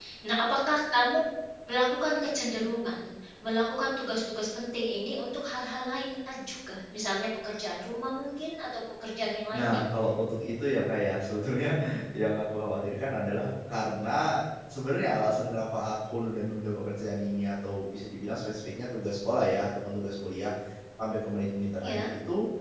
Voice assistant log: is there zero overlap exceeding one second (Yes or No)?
Yes